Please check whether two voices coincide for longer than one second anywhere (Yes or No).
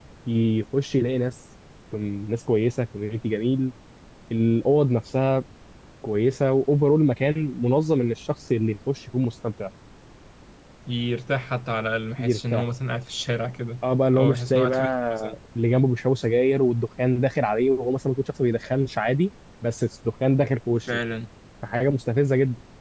Yes